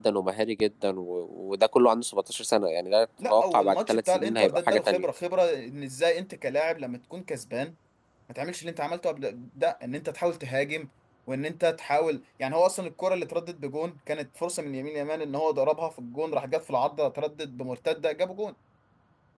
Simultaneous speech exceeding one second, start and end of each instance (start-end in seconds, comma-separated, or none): 3.2-5.0